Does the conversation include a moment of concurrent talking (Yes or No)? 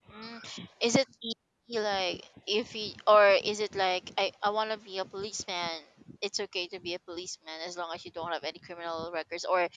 No